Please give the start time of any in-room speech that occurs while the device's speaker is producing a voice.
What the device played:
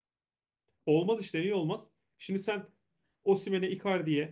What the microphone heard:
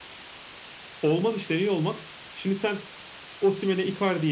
none

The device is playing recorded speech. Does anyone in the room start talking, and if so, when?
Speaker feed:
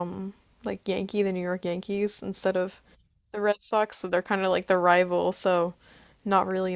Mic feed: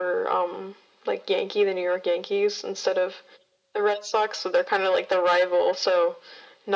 none

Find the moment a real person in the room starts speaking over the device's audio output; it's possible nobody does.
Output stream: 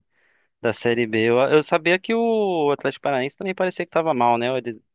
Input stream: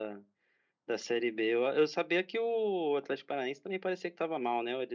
none

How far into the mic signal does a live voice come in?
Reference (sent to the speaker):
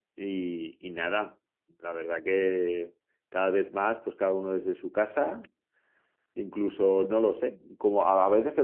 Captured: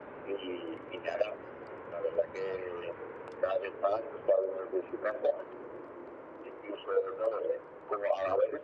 none

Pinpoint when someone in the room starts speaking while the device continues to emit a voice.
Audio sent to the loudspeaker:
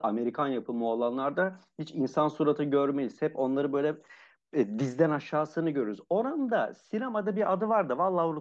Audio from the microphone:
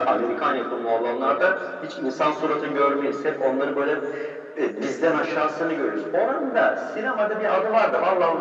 none

